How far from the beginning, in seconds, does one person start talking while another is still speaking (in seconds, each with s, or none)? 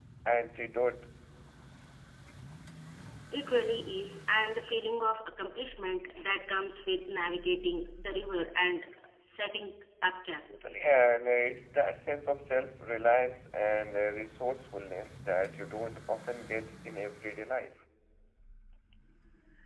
none